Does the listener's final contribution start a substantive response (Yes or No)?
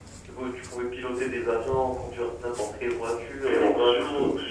Yes